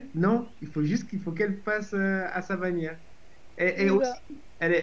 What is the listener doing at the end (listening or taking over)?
listening